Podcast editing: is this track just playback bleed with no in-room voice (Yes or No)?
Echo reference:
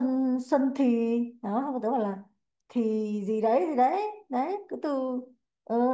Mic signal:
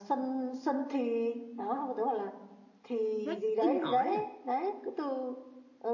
No